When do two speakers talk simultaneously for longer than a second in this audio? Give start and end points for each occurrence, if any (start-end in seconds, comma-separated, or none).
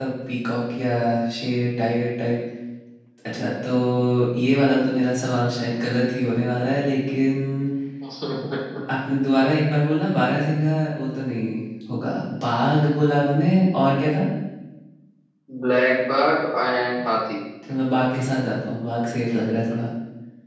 none